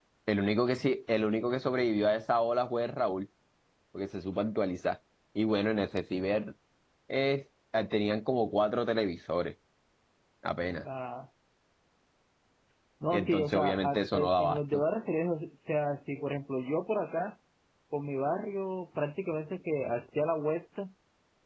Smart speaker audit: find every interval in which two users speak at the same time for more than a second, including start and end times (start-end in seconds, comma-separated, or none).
13.1-14.8